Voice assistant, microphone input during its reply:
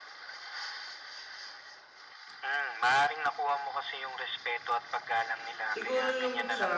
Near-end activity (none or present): present